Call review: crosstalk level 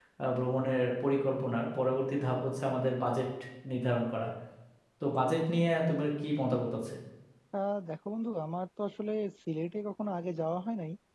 none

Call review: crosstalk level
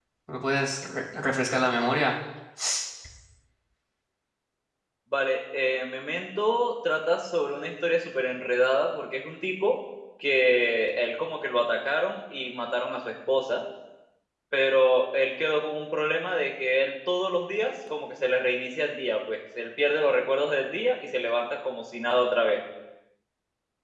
none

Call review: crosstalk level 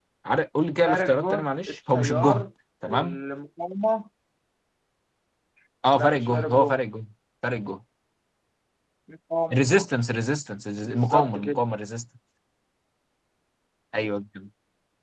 present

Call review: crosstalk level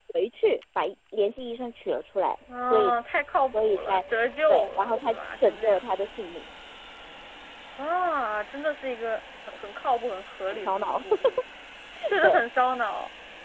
present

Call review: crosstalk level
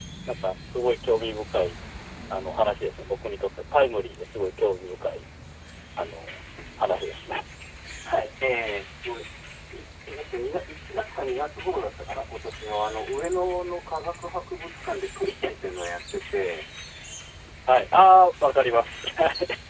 none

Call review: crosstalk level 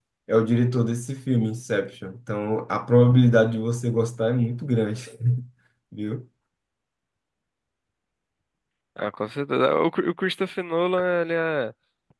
none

